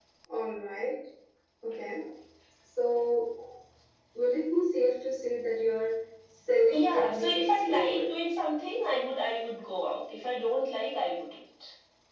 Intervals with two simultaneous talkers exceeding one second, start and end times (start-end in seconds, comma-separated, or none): 6.7-8.1